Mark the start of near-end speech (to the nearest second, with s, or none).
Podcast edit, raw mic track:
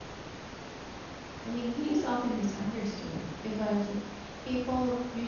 1 s